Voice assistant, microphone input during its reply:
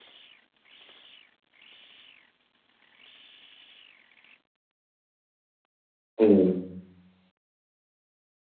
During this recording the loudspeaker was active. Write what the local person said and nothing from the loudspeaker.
हुँ,

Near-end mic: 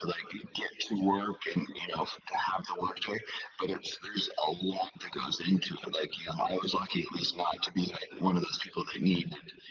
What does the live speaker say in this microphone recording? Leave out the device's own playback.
none

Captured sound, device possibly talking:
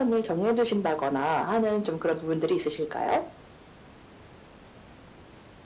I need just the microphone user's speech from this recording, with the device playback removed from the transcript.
none

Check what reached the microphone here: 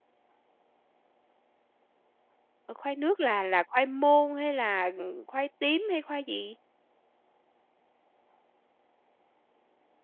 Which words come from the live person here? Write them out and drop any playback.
Ờ, khoai nước là là khoai môn hay là, ừm, khoai tím hay khoai gì?

